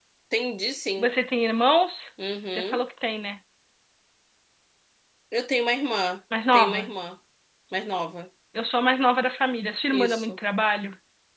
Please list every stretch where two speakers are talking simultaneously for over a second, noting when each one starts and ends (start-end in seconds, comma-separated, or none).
none